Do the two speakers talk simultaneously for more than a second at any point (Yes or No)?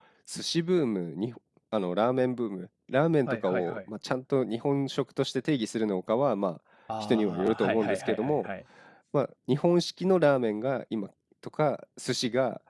Yes